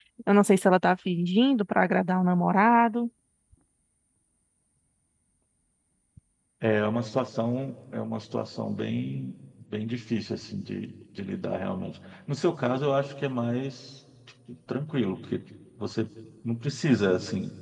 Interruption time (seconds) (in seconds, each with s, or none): none